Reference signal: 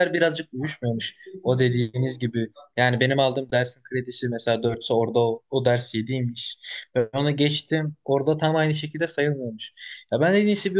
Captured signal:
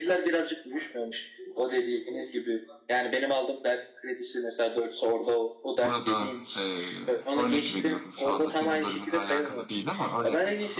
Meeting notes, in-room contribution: present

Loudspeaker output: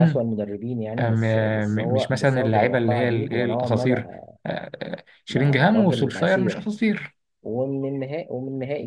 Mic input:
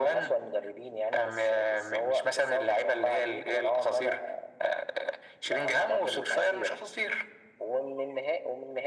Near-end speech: none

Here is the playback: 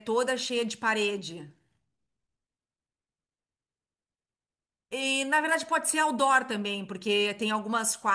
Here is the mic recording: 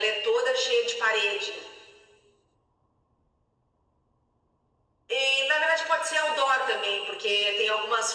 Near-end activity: none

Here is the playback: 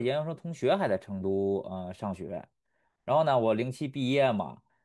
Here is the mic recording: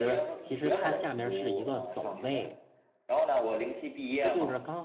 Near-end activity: present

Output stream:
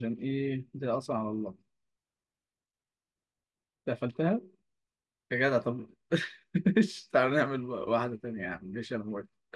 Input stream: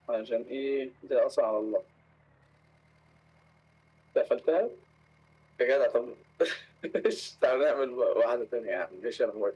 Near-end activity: none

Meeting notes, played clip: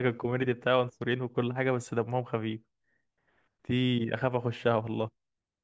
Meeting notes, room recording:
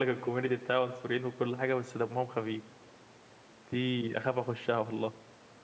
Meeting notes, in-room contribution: none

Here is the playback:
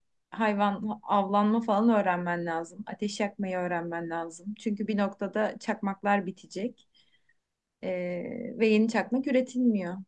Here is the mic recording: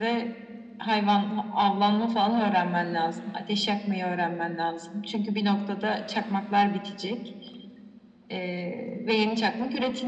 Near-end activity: none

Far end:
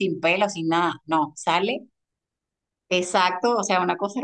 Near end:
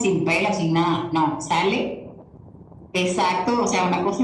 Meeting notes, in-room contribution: none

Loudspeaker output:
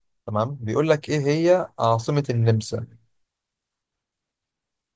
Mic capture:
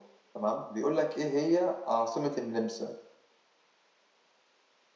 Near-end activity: none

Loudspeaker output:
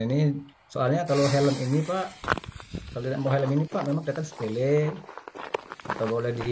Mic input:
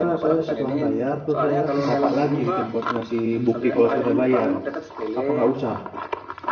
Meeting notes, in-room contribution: present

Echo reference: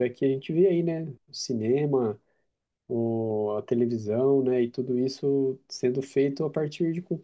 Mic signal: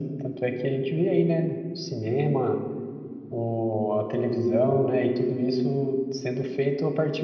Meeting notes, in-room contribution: none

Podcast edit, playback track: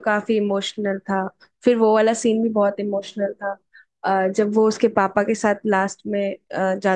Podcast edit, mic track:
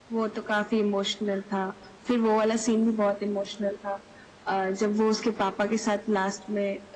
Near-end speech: none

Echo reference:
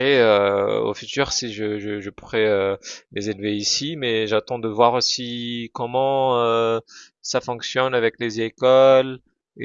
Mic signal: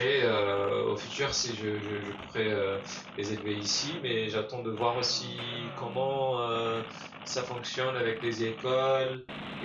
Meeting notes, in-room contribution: none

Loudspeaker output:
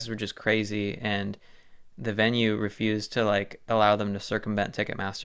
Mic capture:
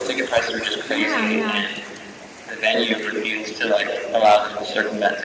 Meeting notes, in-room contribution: present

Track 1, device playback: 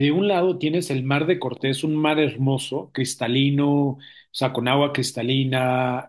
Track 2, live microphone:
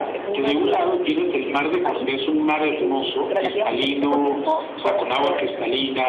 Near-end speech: present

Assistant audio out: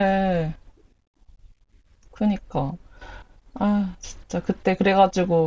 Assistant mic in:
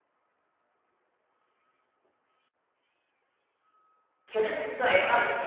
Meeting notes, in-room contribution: present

